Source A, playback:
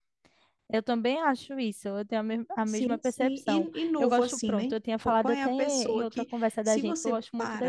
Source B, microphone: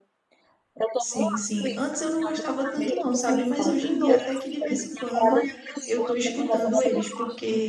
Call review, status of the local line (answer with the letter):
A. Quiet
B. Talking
B